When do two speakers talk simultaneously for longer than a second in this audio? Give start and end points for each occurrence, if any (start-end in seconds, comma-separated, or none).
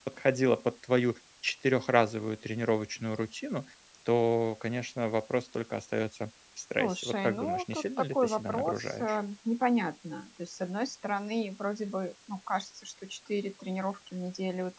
6.8-9.2